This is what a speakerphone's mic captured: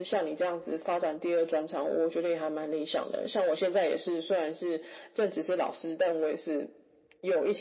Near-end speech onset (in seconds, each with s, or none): none